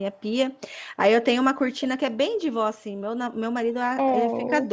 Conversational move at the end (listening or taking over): listening